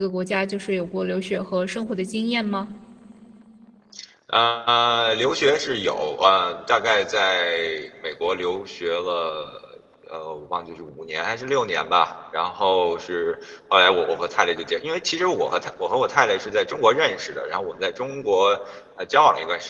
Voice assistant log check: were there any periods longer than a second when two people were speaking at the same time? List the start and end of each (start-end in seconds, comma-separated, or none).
none